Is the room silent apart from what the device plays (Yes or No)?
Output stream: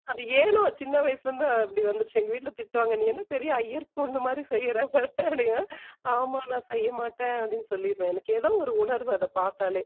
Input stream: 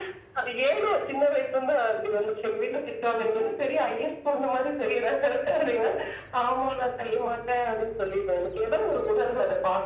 Yes